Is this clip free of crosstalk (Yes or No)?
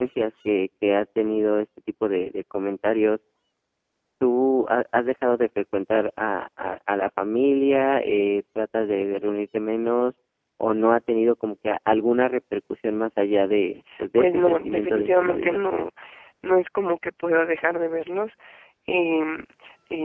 No